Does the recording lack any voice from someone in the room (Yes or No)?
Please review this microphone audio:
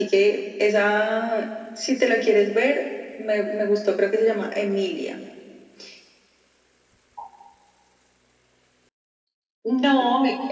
Yes